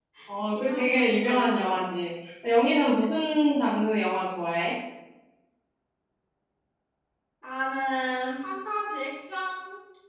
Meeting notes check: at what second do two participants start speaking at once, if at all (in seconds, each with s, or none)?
0.5 s